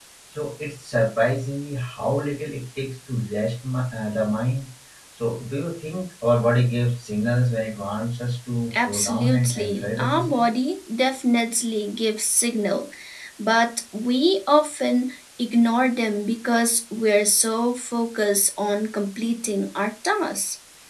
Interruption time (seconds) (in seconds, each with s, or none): 8.7 s